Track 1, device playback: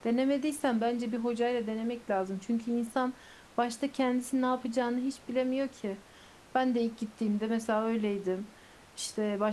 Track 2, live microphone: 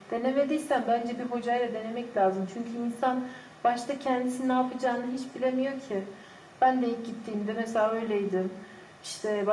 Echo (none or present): present